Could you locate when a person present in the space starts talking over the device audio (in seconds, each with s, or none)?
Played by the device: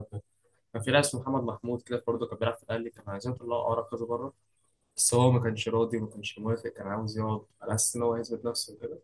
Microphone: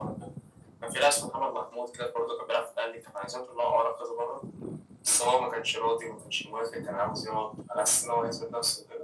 none